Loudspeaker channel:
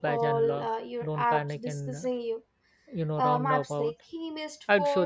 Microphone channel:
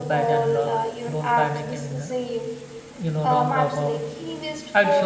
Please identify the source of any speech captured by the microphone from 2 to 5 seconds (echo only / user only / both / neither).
echo only